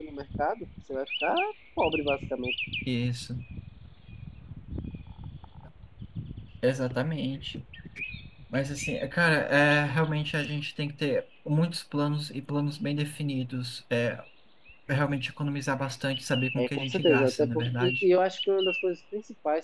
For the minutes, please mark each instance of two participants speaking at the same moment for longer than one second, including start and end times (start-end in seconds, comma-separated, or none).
16.6-18.0